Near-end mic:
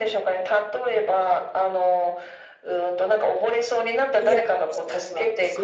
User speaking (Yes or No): Yes